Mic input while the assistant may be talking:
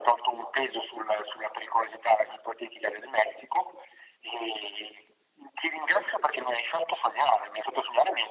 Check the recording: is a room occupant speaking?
No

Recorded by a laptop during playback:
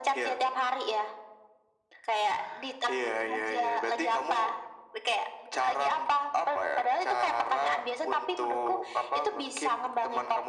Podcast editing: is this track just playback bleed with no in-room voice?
Yes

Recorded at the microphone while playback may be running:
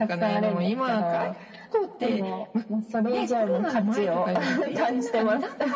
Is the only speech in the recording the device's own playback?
Yes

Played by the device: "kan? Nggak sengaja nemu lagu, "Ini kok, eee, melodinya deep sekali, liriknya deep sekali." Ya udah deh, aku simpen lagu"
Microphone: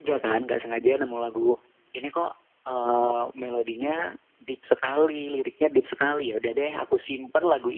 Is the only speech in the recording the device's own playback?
Yes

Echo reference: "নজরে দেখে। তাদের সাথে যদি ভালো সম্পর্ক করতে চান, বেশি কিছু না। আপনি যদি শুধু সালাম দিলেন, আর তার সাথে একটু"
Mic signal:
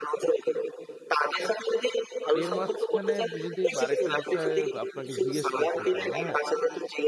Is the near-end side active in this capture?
Yes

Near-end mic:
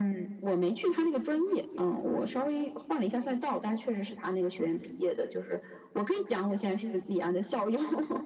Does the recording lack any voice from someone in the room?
Yes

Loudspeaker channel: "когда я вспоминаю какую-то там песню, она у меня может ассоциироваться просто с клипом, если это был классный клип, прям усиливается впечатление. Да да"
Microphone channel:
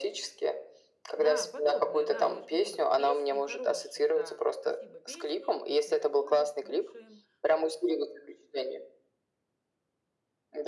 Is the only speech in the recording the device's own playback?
No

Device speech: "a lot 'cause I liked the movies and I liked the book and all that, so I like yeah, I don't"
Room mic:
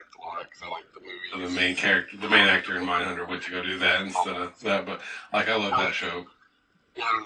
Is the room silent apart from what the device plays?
No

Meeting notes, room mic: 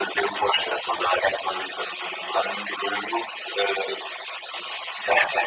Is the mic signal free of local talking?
Yes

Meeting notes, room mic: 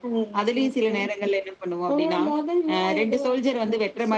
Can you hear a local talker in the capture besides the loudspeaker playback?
No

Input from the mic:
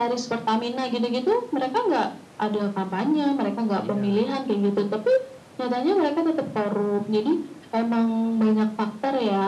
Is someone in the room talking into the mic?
Yes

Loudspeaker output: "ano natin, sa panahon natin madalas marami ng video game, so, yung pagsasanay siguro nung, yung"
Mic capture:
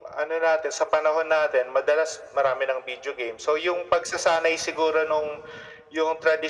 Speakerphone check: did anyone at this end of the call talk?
No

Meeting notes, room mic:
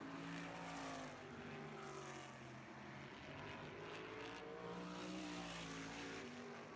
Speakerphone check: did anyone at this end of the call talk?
No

